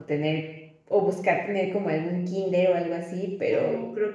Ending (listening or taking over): listening